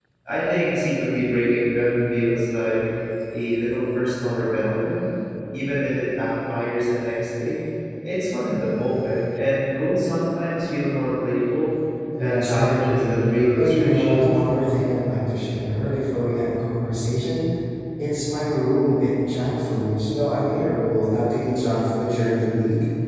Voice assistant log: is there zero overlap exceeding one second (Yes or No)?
No